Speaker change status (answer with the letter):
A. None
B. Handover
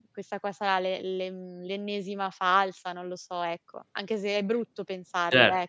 B